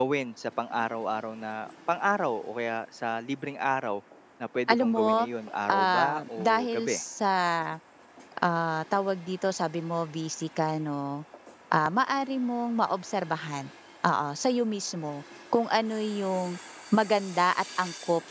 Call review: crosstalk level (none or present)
present